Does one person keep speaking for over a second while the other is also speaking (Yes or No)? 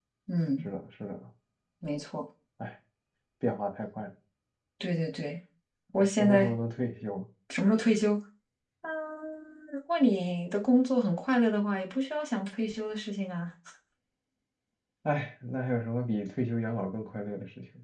No